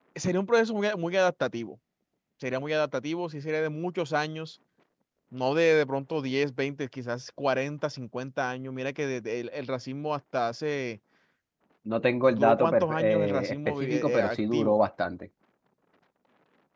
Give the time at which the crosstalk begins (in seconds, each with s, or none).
12.3 s